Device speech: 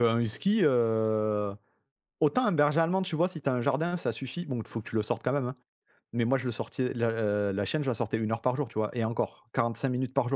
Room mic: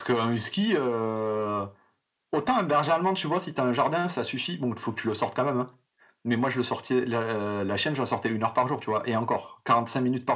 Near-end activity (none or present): none